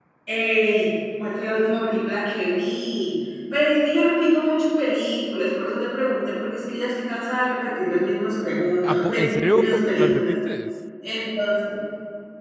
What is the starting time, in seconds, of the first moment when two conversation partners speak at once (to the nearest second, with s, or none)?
9 s